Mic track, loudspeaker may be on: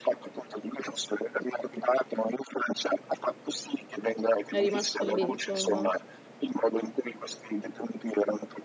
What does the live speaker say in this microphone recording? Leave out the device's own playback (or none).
È rimasto lì insomma.